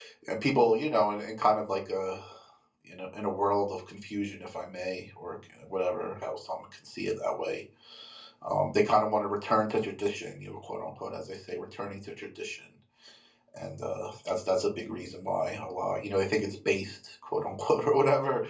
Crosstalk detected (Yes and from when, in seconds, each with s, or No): No